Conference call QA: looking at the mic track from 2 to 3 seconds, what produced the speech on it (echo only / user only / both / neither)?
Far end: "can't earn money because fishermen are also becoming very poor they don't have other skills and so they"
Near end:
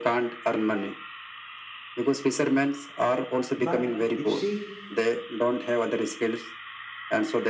echo only